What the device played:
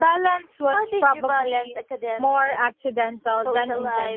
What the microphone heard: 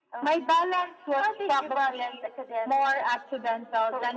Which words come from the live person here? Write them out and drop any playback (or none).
none